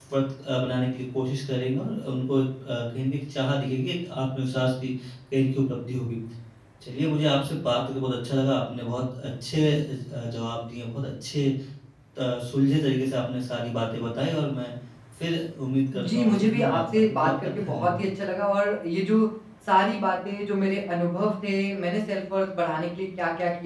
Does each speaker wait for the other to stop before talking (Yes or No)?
No